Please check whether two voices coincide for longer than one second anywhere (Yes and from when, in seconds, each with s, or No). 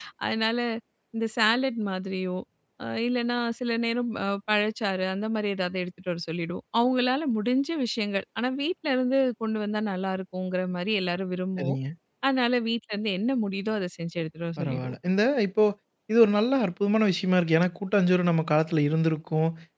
No